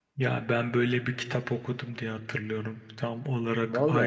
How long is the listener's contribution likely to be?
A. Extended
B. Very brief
B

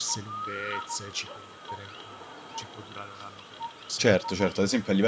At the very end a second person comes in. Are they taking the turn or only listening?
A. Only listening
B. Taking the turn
B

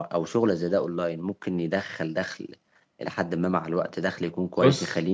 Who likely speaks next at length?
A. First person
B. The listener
A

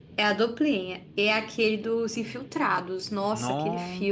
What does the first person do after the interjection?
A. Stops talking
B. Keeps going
A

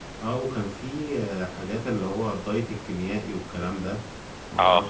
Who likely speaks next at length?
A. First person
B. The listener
A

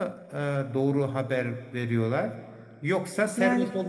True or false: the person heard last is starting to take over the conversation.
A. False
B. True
A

